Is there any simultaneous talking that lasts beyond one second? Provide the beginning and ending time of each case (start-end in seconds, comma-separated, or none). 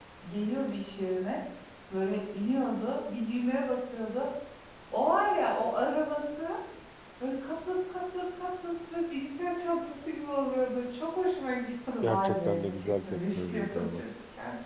12.0-14.0